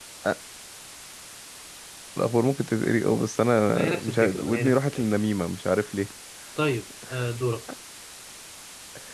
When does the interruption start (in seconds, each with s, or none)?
3.7 s